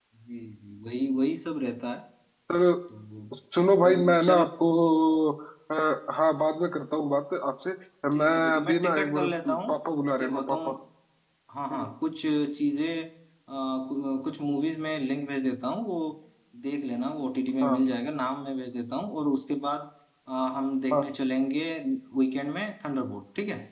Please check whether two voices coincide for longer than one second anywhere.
Yes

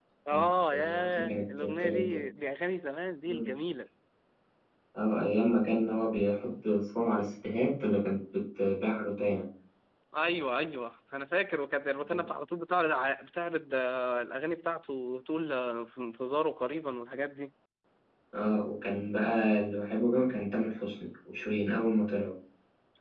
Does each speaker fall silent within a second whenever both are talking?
No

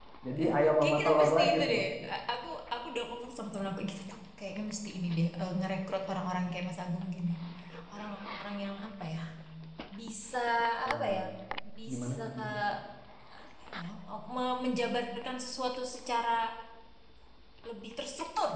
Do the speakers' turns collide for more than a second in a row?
Yes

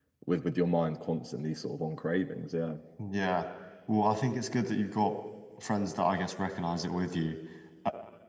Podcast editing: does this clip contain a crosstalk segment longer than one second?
No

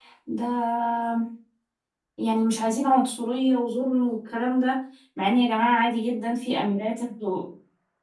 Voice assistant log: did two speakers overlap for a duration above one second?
No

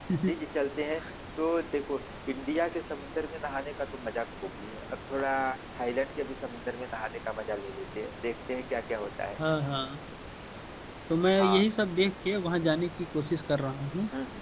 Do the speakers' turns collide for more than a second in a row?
No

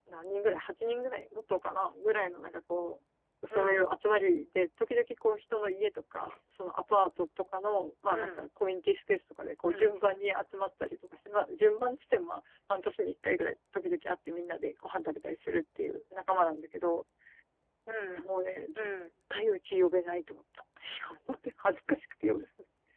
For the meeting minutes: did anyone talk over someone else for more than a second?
No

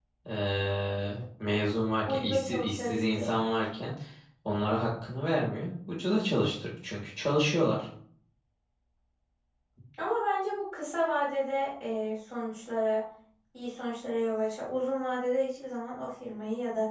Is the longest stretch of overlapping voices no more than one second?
No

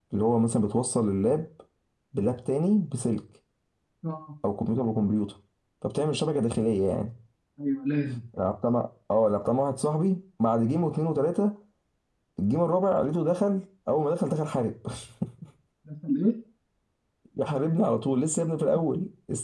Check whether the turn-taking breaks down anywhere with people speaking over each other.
No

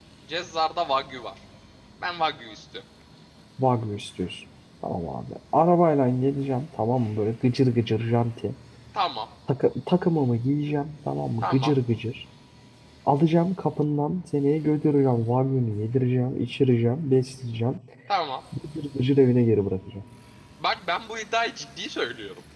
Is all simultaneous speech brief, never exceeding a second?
Yes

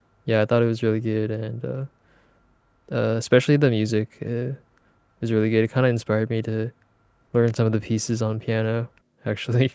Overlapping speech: No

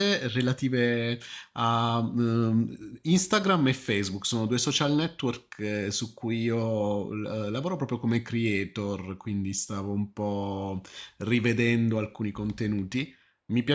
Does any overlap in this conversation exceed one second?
No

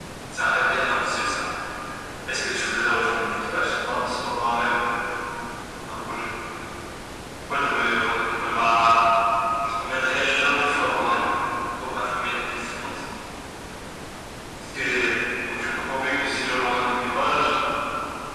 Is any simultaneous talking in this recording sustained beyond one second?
No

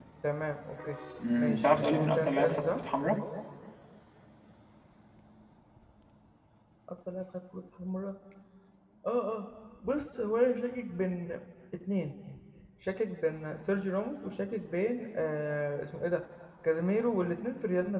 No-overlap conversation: No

